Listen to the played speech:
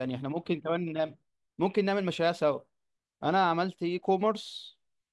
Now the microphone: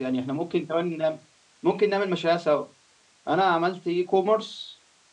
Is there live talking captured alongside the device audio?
No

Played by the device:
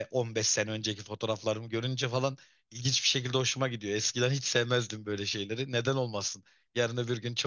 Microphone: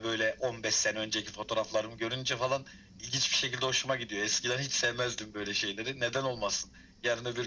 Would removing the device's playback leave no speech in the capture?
Yes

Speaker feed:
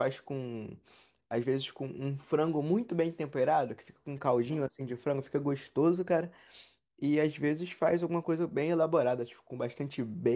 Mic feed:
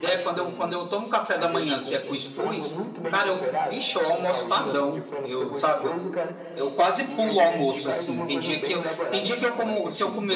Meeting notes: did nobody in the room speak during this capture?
No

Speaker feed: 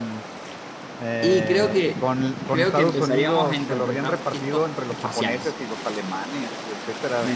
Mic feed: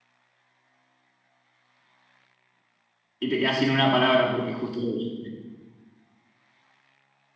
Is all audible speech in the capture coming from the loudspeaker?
No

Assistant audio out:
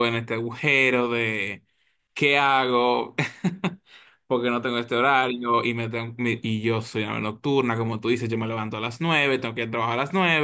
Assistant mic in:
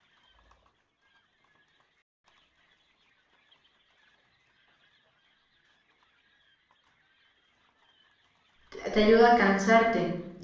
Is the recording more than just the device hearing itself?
Yes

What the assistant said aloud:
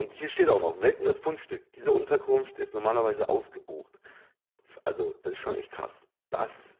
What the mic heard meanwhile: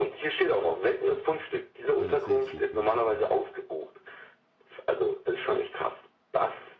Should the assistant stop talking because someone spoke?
Yes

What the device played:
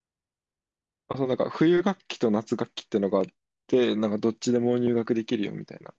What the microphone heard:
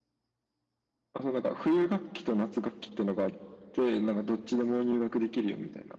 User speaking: No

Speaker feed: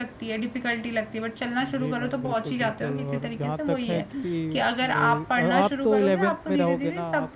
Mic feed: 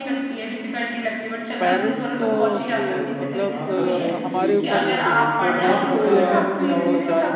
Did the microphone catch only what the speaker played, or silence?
No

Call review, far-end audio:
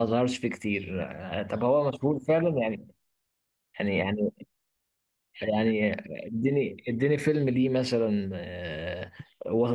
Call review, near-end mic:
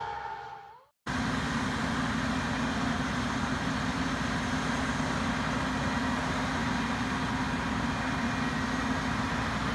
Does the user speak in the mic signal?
No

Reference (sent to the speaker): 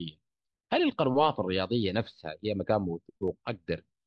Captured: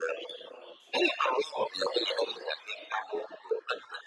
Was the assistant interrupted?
No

